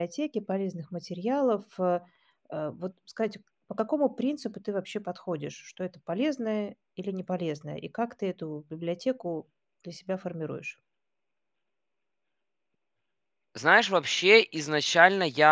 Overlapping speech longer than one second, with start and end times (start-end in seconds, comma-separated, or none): none